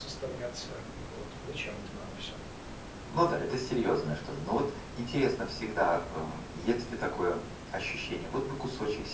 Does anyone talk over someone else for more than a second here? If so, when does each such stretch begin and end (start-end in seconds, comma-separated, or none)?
none